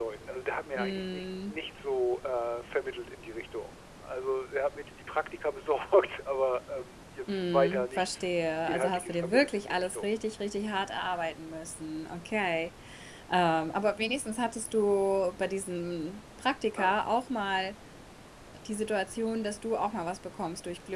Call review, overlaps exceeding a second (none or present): present